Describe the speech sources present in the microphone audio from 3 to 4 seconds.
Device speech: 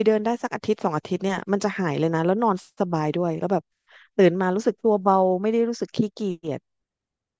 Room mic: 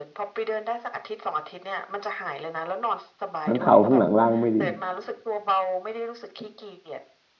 both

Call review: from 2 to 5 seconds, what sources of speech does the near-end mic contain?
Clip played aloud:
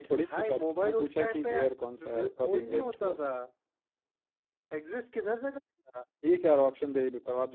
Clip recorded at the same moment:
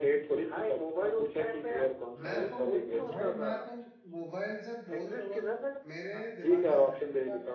both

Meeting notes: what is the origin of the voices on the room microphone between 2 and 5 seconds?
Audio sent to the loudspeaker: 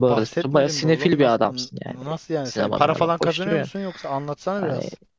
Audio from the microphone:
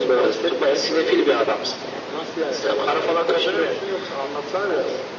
echo only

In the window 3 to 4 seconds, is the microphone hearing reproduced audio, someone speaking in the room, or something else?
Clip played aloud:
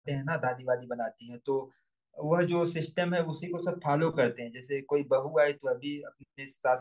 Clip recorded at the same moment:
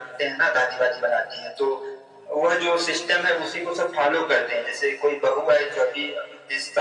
echo only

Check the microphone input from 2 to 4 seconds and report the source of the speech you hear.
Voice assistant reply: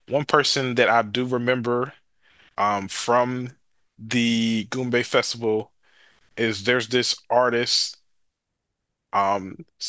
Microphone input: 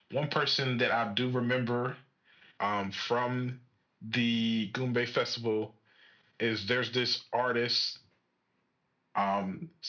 echo only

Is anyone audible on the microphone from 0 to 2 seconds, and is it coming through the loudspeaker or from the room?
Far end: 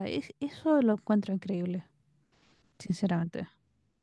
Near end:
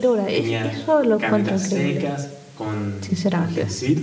both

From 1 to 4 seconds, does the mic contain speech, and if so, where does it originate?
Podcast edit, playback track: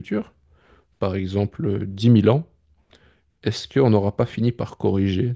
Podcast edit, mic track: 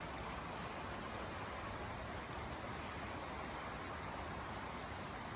neither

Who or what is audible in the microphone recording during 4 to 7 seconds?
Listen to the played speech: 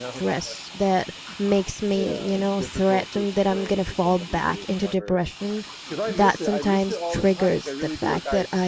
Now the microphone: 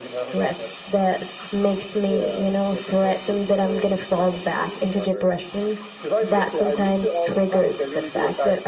echo only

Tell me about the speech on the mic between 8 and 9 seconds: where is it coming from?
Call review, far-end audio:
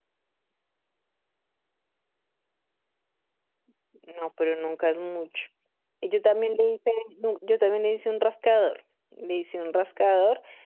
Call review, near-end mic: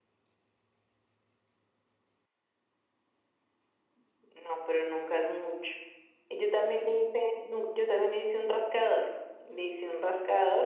echo only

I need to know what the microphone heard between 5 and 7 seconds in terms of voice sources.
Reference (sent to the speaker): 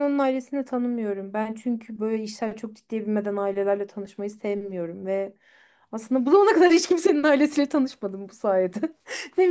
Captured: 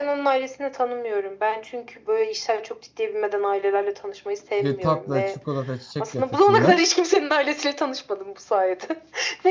both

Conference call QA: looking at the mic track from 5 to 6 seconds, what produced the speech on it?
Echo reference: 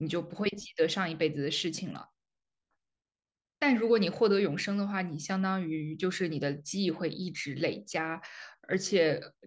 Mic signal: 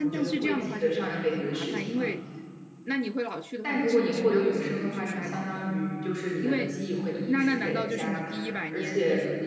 both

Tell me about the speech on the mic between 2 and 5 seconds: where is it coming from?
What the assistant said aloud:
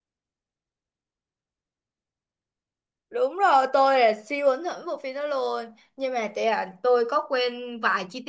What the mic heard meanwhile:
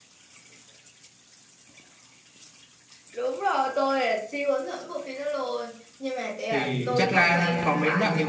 echo only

